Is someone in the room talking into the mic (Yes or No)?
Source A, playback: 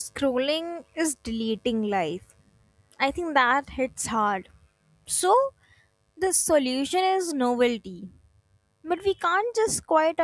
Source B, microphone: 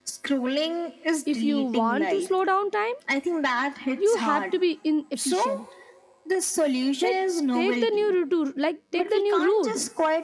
Yes